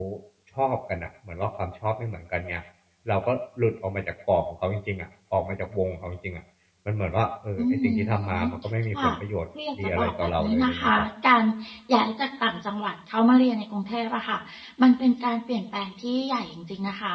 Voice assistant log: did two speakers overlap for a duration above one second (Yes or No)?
Yes